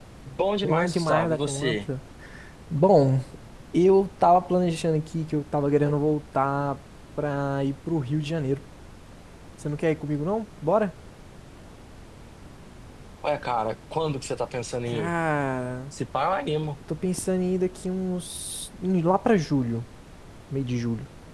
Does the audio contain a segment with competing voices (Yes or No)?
Yes